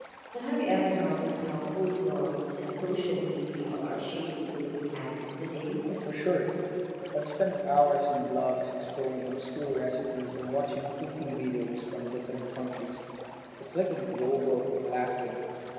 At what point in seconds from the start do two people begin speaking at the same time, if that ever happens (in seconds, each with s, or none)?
none